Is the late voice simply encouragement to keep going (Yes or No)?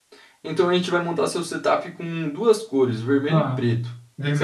No